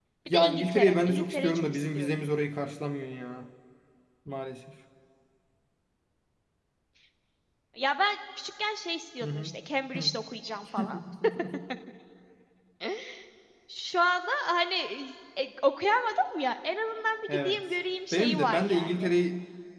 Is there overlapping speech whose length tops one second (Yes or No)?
Yes